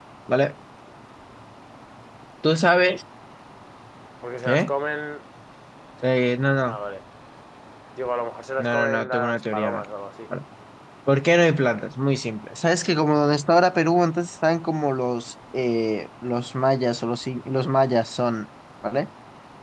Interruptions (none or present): present